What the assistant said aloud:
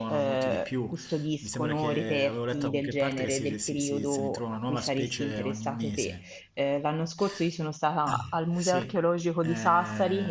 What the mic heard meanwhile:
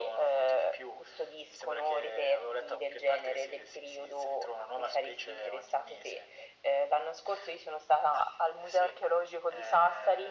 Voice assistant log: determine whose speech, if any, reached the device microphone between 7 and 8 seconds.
echo only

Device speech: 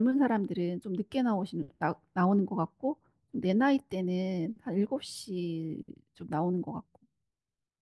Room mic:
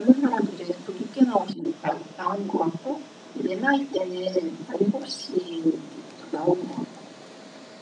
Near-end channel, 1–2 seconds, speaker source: echo only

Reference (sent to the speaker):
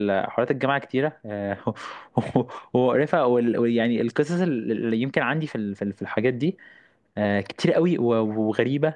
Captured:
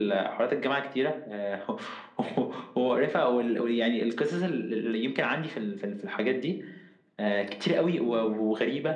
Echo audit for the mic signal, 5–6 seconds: echo only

